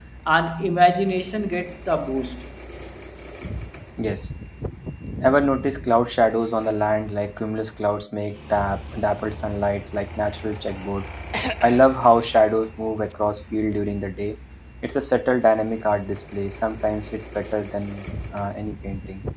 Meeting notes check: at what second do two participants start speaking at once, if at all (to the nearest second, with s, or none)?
none